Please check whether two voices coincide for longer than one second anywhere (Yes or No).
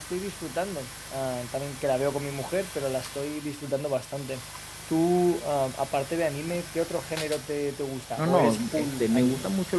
Yes